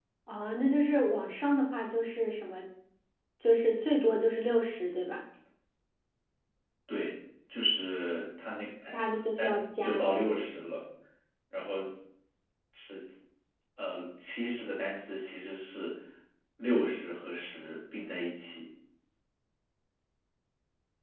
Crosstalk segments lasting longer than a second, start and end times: 8.9-10.1

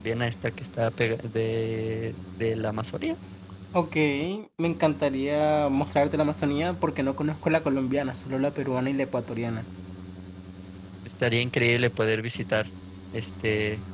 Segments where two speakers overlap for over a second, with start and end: none

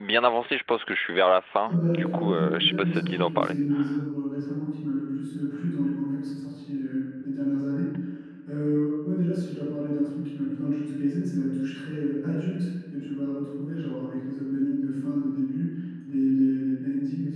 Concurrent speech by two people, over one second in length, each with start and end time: 1.7-3.5

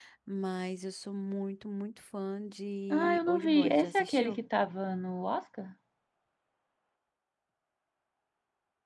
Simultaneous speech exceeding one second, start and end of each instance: 2.9-4.4

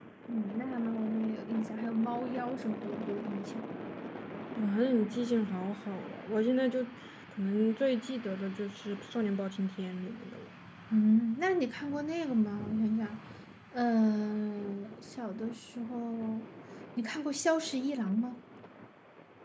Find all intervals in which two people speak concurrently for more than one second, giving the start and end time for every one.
none

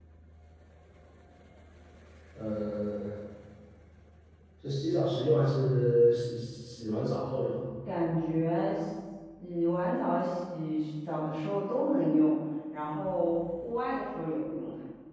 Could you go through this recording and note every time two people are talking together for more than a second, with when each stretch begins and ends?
none

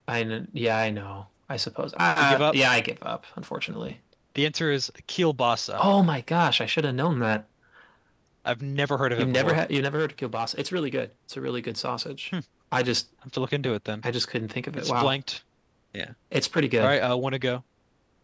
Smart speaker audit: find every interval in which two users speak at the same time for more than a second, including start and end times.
none

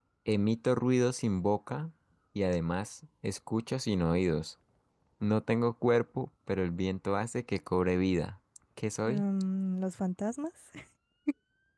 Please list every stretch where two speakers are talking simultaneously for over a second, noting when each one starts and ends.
none

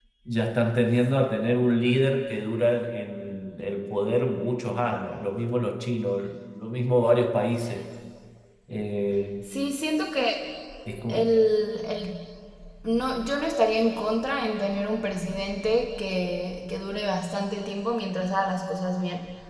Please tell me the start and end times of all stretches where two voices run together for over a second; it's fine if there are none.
none

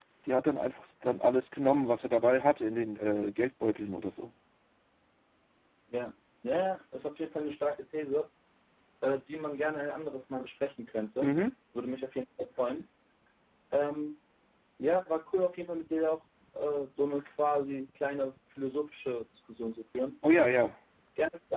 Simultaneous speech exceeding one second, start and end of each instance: none

